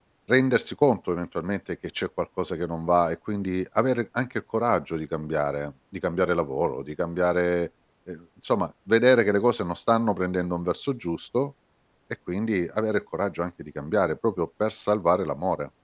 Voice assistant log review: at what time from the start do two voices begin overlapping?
none

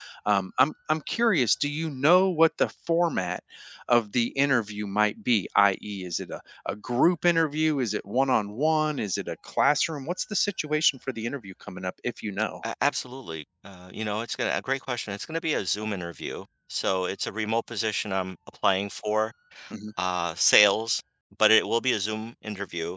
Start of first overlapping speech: none

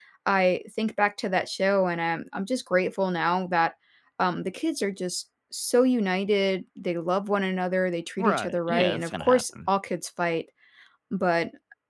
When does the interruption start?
8.2 s

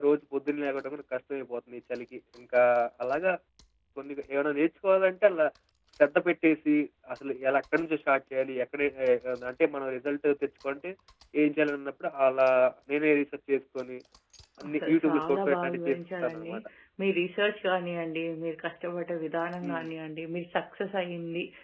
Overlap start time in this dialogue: 14.7 s

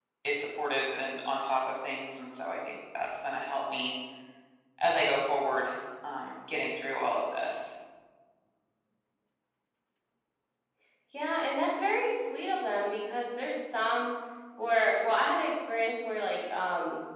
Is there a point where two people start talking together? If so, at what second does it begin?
none

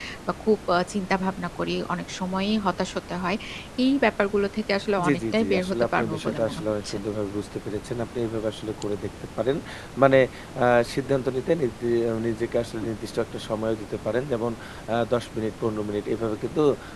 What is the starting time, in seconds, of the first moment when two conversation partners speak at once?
5.0 s

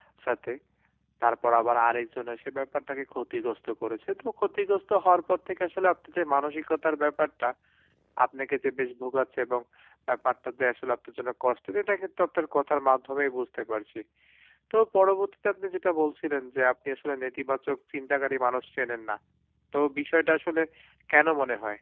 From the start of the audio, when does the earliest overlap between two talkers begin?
none

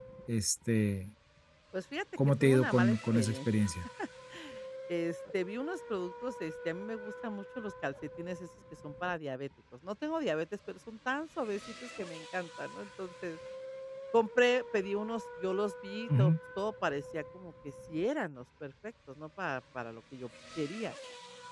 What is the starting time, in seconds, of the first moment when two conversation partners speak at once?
2.4 s

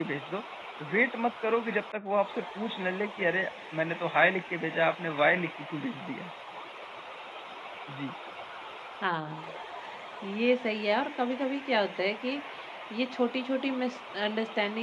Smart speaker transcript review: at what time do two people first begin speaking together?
none

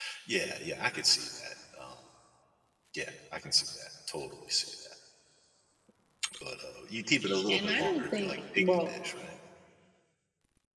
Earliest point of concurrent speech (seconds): 7.5 s

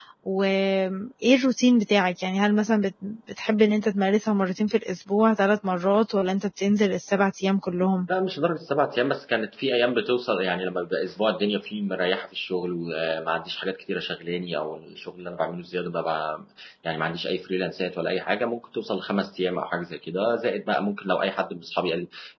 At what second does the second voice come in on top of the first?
none

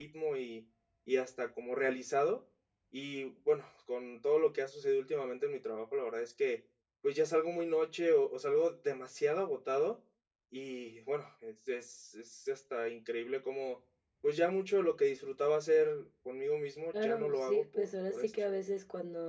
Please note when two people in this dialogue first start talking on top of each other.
16.9 s

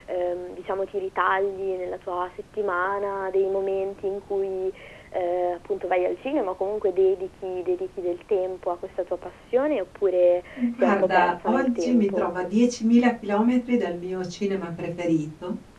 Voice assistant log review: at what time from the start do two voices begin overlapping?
10.6 s

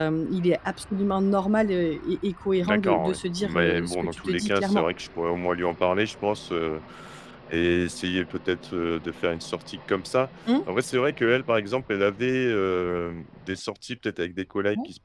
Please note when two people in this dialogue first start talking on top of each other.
2.6 s

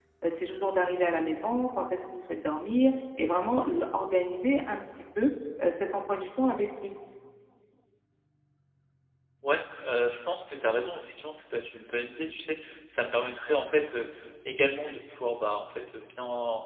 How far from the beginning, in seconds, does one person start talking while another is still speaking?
none

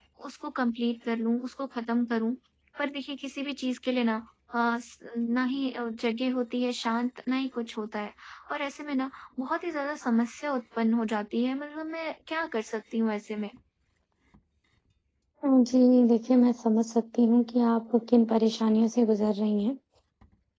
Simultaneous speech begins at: none

